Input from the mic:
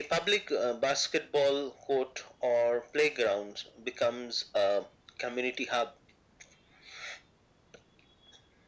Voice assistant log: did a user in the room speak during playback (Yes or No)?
No